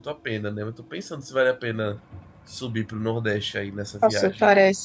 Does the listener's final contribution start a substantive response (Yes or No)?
Yes